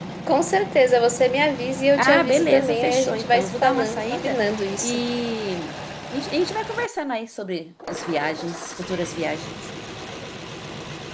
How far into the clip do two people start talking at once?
2.0 s

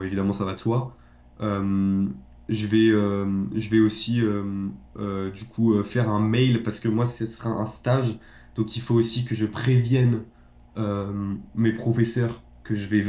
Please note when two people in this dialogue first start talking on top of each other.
none

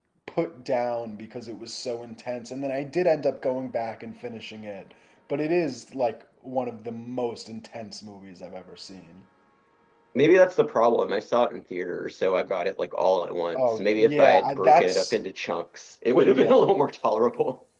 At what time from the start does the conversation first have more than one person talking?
13.6 s

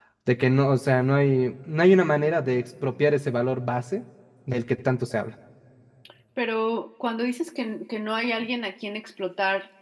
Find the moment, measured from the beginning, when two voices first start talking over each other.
none

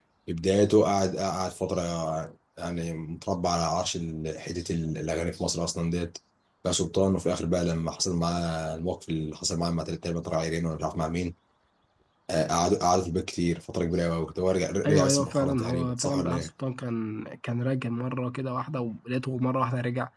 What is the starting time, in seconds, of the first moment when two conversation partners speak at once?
14.8 s

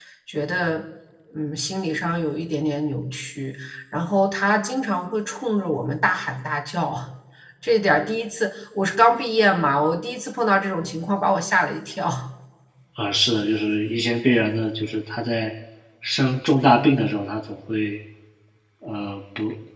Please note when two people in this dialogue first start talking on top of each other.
none

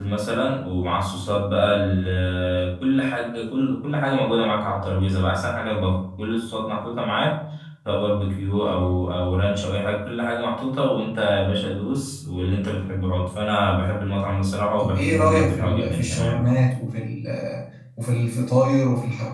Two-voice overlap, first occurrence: 14.8 s

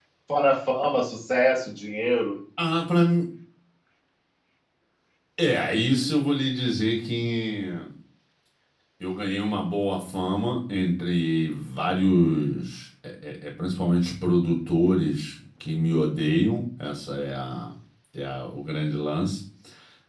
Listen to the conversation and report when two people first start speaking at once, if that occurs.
none

